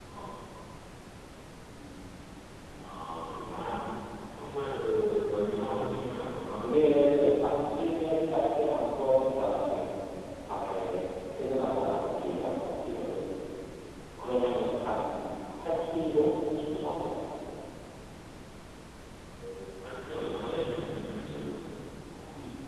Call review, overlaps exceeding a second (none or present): none